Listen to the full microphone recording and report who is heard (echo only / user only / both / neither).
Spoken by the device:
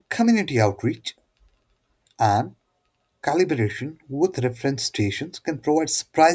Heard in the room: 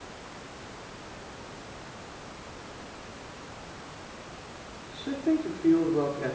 user only